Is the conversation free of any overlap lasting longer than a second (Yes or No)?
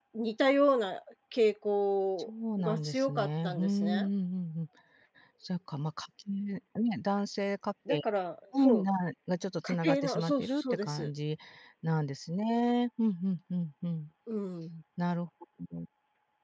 No